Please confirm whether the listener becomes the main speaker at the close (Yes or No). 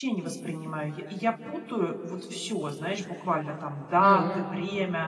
No